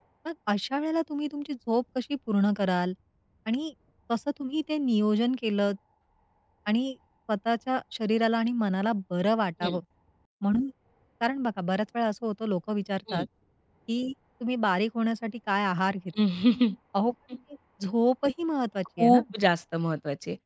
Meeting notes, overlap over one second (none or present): none